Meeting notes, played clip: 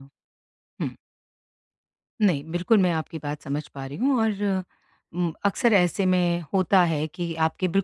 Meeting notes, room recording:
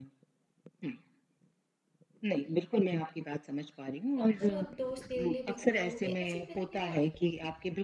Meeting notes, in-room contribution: present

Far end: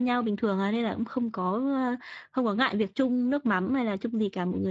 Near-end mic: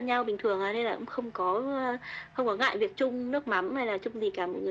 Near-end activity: none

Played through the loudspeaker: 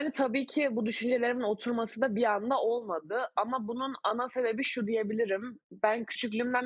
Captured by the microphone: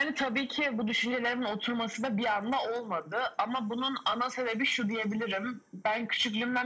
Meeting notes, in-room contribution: none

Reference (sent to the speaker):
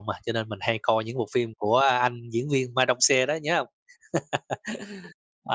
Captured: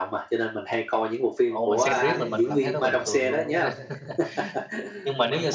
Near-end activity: present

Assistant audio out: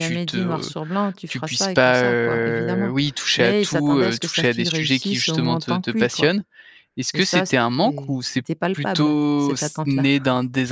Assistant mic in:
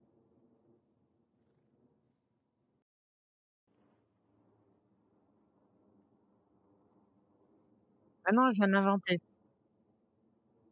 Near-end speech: present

